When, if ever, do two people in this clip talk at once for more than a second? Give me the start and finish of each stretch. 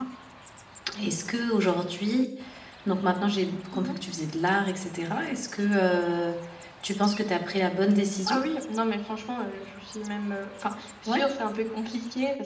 none

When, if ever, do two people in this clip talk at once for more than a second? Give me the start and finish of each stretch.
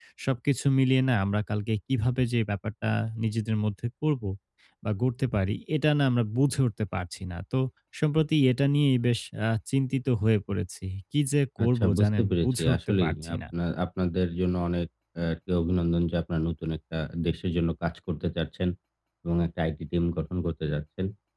11.6-13.4

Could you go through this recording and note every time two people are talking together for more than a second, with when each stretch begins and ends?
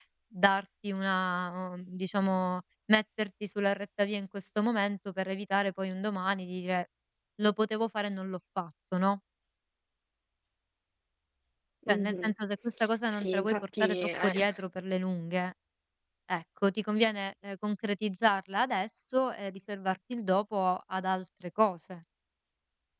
13.1-14.3

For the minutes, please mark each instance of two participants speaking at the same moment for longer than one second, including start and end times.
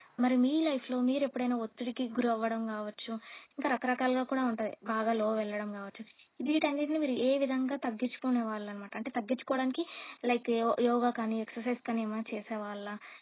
none

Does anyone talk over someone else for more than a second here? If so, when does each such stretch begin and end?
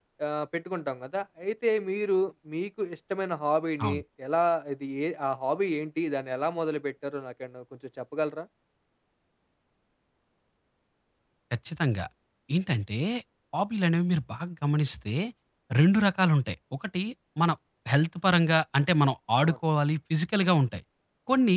none

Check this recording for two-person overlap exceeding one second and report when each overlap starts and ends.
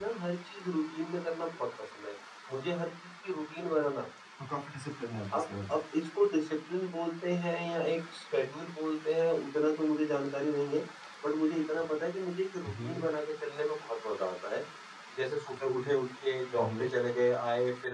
none

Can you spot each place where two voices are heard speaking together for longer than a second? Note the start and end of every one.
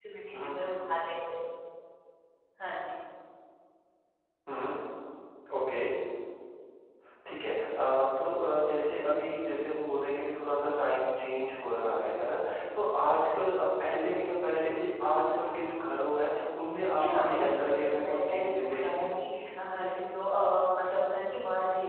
16.9-19.1

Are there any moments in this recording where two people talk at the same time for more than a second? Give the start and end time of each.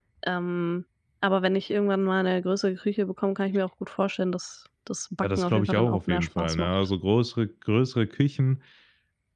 5.2-6.7

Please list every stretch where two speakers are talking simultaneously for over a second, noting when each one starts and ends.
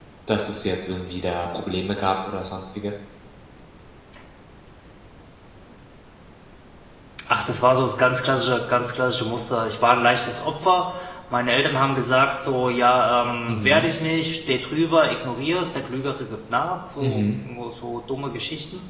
none

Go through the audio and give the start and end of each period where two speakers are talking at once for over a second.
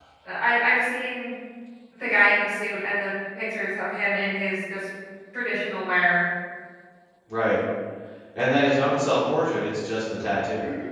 none

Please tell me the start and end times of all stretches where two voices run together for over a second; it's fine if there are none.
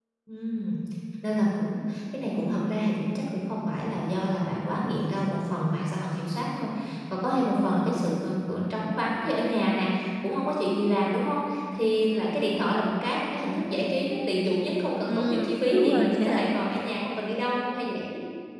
15.1-16.6

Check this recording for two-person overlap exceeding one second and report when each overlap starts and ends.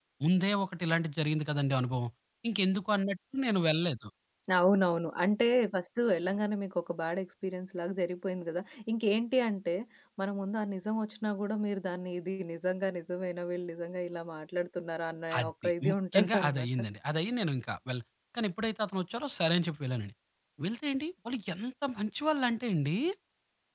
15.4-16.7

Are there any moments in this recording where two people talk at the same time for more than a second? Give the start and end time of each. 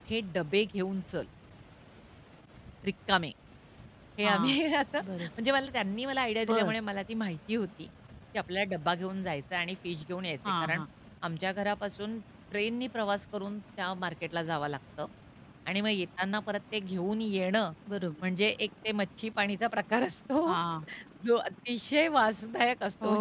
none

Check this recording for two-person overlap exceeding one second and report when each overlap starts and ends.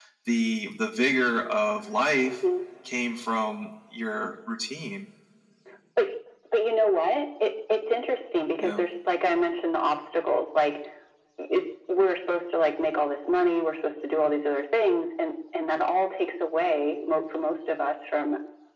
none

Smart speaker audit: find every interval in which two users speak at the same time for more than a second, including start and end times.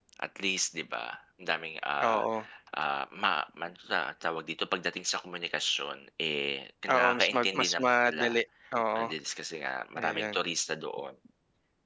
7.0-8.2

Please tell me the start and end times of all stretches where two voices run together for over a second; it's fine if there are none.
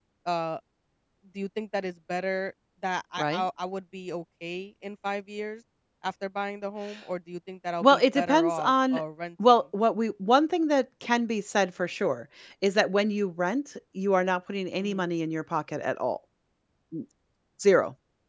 7.8-9.0

